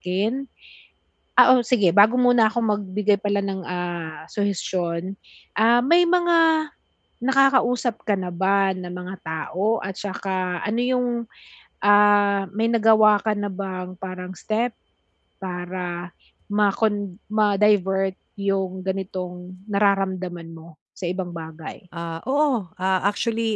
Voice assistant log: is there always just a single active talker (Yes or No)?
Yes